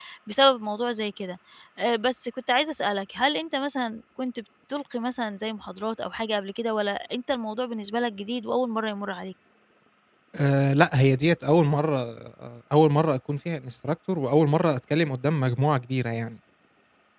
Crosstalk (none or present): none